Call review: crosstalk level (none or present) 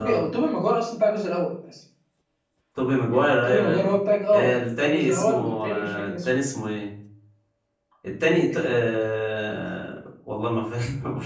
present